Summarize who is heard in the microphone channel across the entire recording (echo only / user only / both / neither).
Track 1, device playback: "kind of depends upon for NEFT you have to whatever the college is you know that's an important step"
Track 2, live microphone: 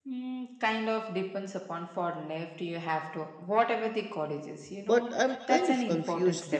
both